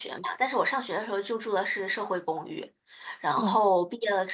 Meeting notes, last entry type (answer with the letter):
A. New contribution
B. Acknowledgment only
B